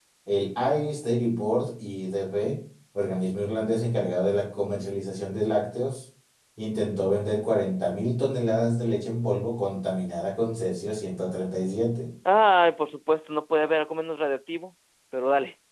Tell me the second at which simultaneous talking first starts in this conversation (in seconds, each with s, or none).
none